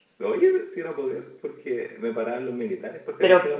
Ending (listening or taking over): listening